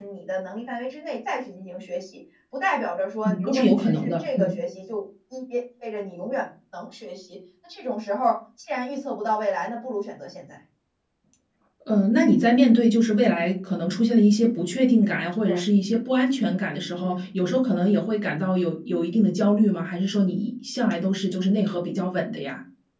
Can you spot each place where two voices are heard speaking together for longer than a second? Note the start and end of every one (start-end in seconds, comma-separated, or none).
3.2-4.6